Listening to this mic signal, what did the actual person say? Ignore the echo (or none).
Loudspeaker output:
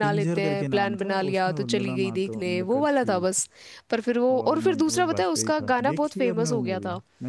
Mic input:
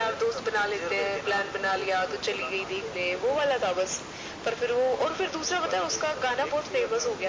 none